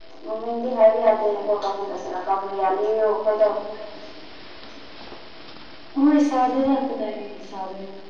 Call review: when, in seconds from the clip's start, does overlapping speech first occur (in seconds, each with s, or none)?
none